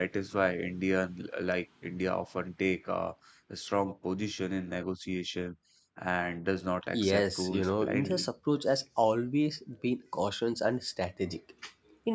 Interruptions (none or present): present